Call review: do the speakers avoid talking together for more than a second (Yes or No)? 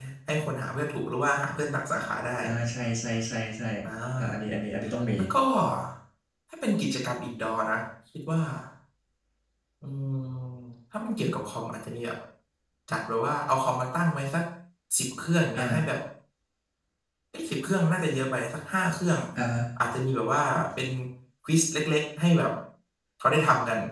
Yes